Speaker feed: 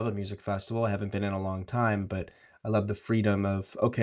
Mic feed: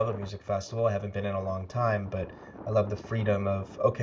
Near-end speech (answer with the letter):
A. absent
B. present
A